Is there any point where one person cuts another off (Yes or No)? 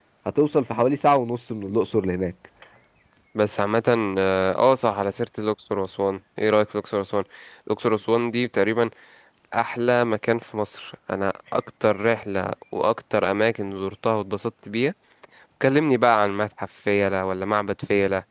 No